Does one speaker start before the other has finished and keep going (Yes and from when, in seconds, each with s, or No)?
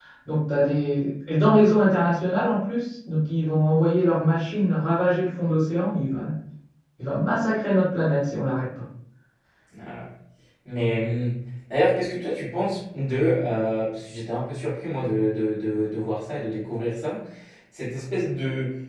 No